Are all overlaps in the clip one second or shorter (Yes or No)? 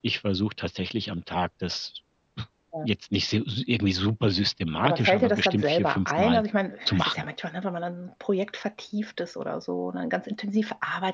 No